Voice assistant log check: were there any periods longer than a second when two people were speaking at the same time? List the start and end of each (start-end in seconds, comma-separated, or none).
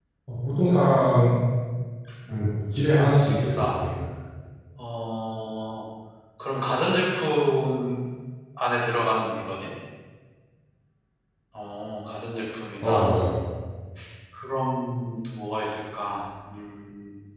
2.3-3.6